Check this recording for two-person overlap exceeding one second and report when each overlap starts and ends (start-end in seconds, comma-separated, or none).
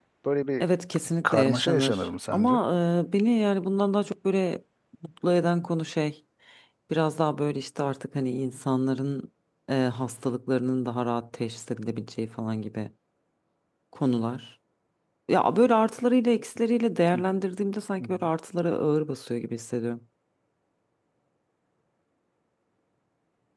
1.2-2.6